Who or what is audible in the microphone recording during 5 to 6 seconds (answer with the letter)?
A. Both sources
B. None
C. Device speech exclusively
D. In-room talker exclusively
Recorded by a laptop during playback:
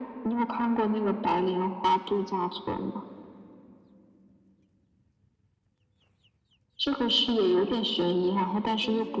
B